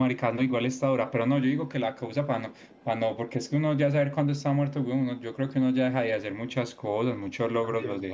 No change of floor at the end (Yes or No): No